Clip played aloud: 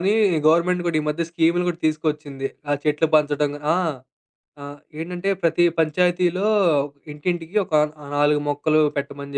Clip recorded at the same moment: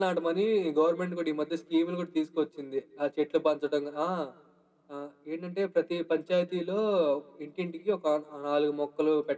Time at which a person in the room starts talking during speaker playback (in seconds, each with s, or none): none